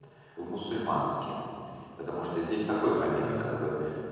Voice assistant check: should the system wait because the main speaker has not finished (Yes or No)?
Yes